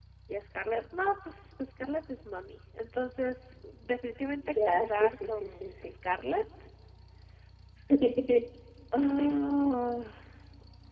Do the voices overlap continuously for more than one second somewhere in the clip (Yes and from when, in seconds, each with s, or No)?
Yes, from 4.4 s